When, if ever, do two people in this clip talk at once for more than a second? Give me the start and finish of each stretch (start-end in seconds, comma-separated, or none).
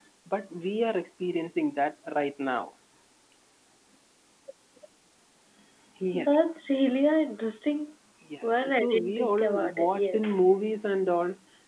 8.6-10.2